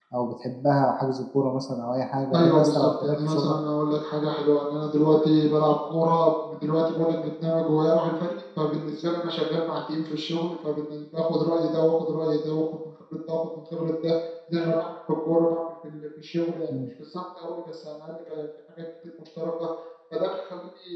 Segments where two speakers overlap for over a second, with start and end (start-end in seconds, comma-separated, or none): 2.3-3.6